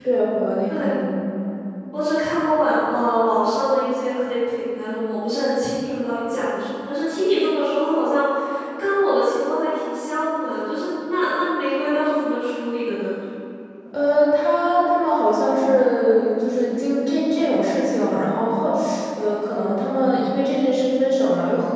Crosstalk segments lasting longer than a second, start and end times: none

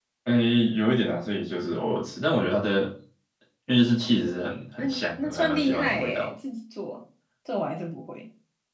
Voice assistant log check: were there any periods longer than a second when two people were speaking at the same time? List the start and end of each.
4.2-6.3

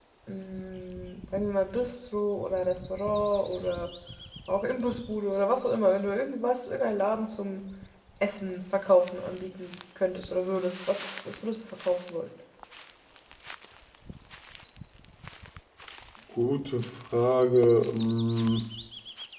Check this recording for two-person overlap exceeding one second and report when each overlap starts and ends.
none

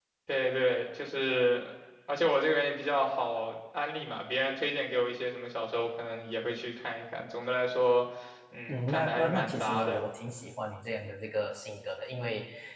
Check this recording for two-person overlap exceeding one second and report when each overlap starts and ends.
8.7-10.0

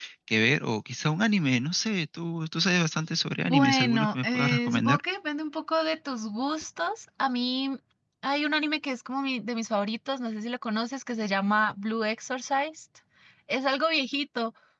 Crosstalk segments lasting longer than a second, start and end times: 3.5-5.0

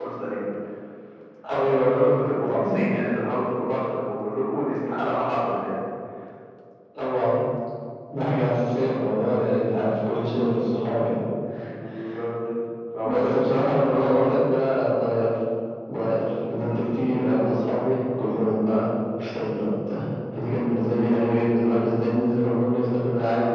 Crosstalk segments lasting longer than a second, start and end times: 13.0-14.4

